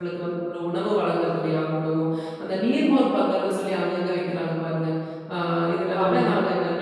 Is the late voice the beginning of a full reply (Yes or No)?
No